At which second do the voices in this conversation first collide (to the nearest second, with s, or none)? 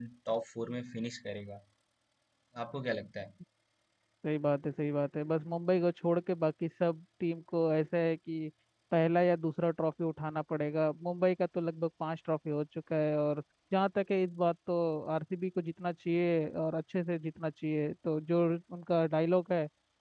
none